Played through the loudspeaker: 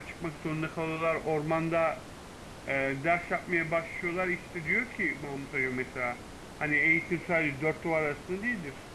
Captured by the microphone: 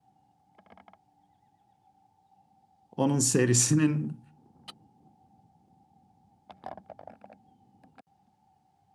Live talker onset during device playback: 3 s

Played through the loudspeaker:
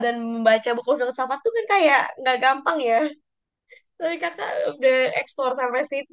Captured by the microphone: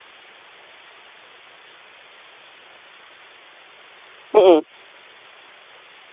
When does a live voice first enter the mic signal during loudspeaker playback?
4 s

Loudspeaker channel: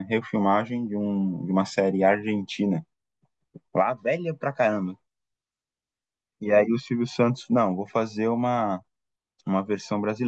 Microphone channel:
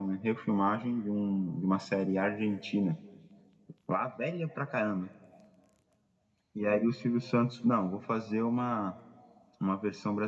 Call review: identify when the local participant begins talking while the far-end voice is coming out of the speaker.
none

